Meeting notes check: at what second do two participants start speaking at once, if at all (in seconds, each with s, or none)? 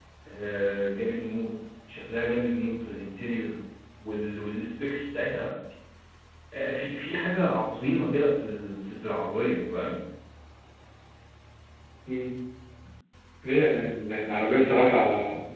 none